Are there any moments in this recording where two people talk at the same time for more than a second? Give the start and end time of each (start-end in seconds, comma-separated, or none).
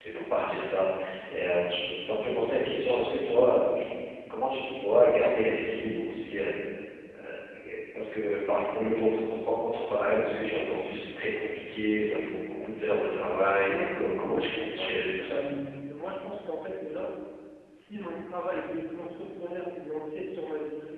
13.4-15.4